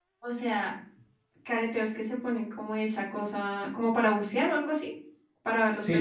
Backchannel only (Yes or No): No